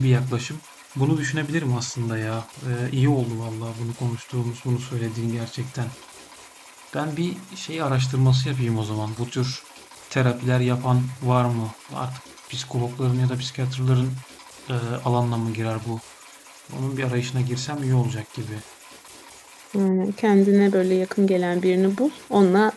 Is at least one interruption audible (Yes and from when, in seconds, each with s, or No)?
No